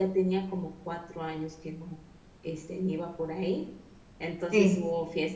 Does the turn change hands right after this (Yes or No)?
No